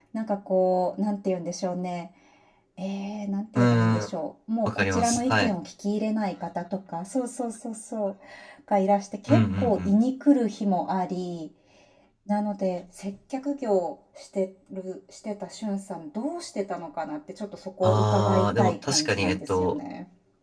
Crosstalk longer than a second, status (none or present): present